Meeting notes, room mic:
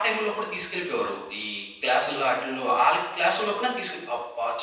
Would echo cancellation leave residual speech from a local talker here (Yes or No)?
No